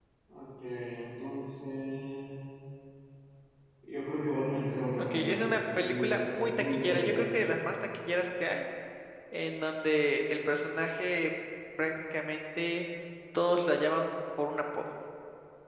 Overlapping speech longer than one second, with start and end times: 5.0-7.2

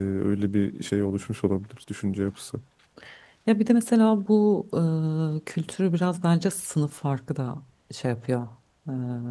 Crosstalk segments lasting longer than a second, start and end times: none

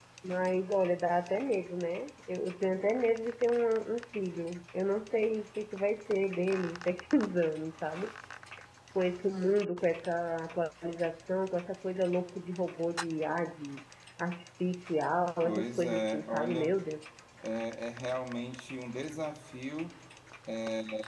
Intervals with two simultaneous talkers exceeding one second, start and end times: 15.4-16.8

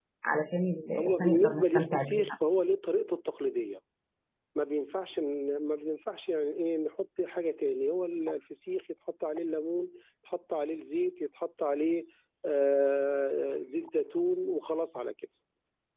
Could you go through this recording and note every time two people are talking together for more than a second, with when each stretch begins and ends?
1.0-2.2

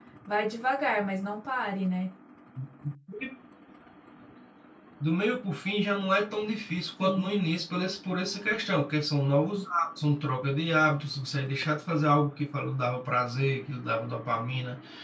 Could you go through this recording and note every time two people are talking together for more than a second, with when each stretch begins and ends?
none

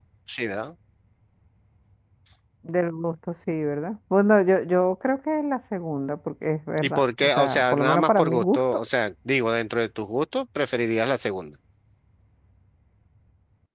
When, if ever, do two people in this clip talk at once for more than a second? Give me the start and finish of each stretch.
6.8-8.6

